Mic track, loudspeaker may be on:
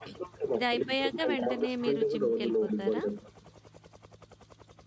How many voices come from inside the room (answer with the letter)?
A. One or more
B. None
A